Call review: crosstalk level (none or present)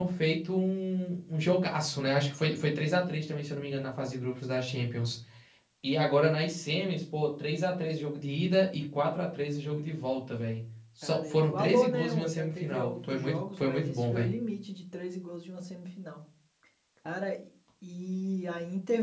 present